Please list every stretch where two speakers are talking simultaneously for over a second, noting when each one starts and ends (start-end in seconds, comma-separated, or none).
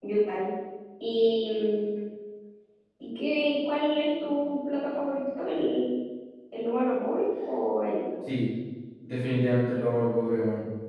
none